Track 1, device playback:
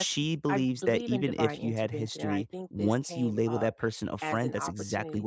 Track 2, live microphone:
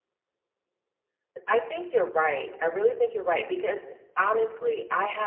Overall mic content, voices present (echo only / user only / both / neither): user only